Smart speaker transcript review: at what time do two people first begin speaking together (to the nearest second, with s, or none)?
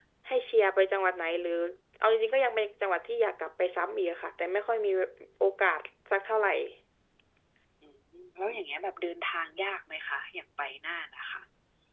none